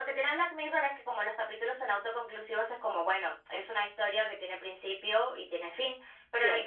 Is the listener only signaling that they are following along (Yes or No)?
Yes